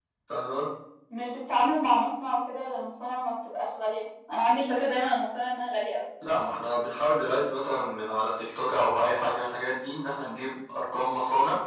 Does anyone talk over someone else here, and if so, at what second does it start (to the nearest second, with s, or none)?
none